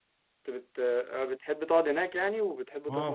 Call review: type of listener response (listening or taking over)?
taking over